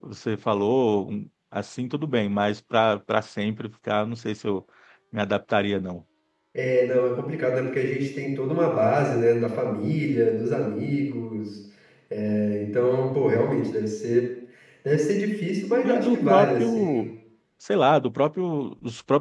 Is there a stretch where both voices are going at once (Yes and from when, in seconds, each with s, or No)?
Yes, from 15.8 s